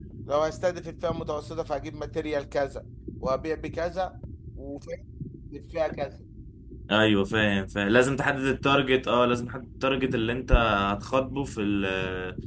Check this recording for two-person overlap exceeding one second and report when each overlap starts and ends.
none

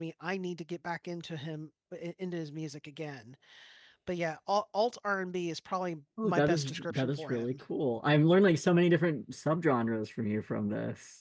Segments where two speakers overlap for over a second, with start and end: 6.2-7.6

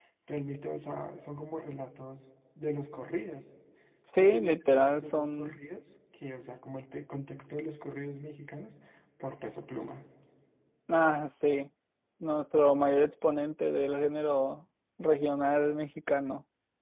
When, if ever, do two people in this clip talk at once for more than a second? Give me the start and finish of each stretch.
4.2-5.6

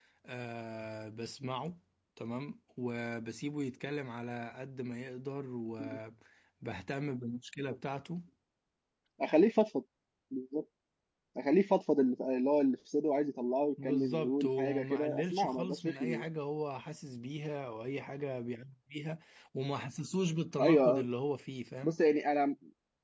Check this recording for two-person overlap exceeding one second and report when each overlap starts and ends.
13.8-16.2

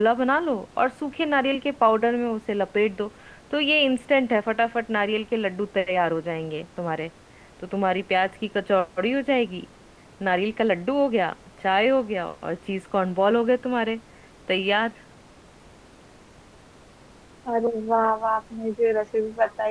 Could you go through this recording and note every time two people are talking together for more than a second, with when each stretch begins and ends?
none

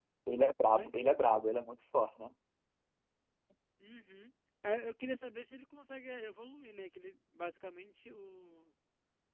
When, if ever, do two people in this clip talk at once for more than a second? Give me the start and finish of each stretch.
none

